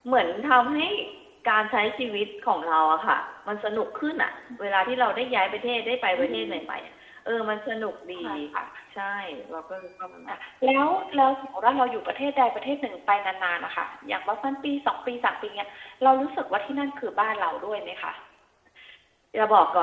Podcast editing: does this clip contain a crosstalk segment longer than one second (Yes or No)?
No